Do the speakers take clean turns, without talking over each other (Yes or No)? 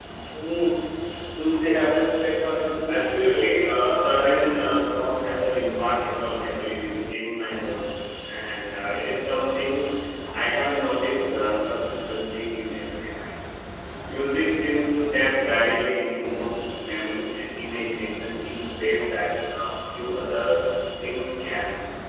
No